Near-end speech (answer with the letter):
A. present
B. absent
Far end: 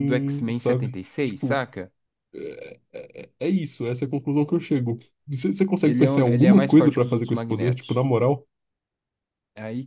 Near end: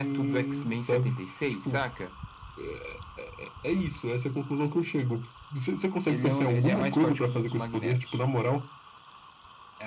B